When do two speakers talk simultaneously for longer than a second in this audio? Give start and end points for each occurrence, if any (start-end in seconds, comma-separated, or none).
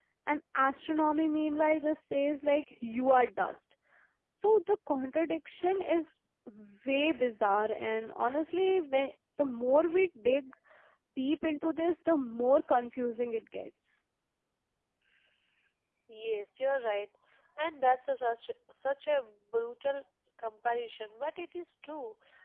none